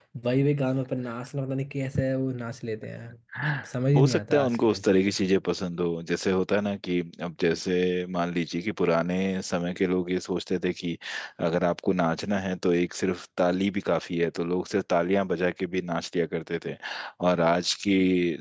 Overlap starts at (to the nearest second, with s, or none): 4 s